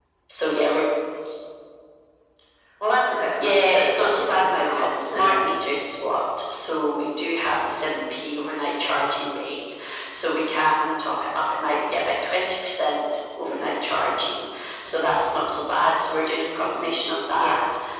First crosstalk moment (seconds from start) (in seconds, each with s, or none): 3.4 s